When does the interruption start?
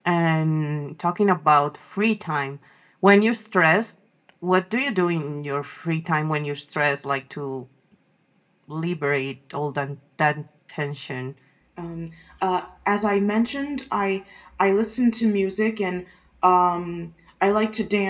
none

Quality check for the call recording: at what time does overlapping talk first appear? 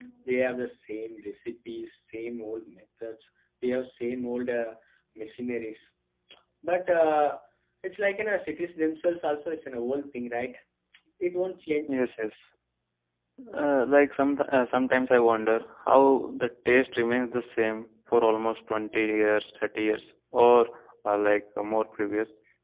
none

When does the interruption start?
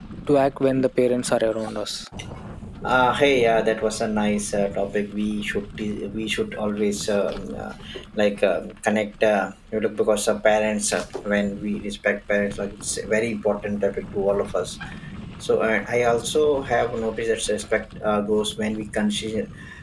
none

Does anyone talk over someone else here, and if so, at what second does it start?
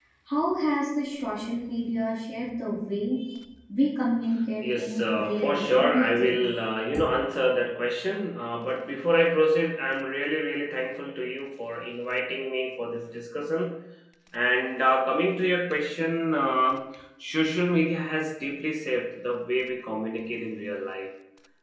4.6 s

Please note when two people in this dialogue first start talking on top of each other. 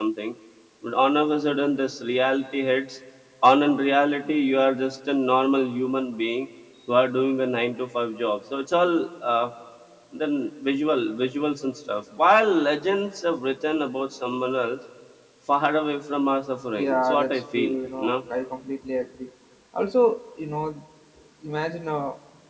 16.8 s

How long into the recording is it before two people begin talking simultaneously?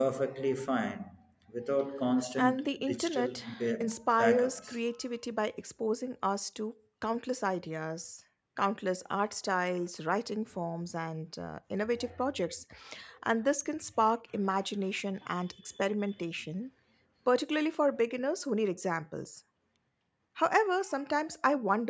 2.4 s

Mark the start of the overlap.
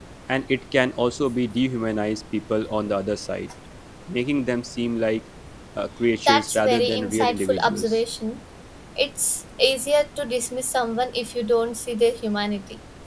6.3 s

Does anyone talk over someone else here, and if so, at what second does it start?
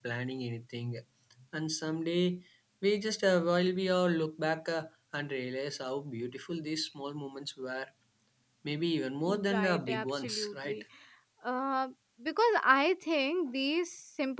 9.3 s

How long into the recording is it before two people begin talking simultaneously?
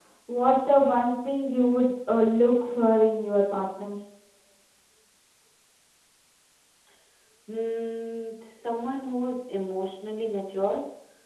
none

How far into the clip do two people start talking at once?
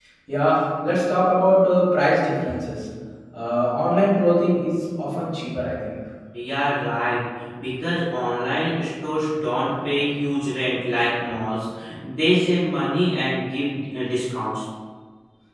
none

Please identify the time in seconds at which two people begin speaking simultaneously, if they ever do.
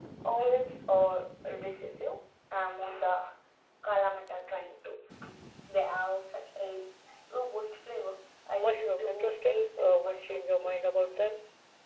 8.6 s

